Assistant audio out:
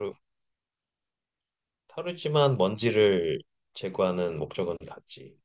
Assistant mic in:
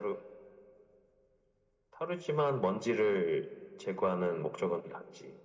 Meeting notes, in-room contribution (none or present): none